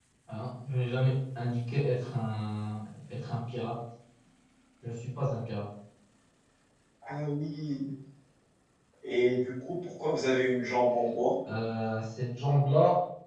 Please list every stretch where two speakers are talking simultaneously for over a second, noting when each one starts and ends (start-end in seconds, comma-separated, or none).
none